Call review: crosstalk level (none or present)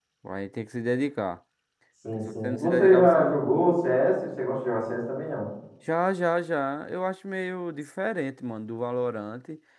present